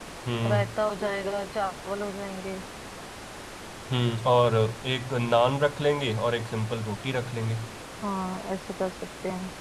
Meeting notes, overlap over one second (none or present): none